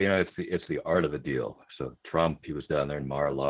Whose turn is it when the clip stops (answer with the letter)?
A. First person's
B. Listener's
A